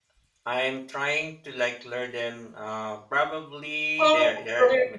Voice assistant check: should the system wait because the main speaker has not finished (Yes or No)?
No